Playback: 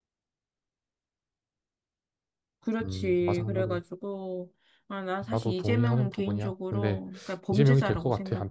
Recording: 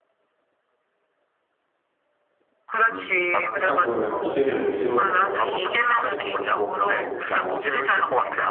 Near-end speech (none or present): present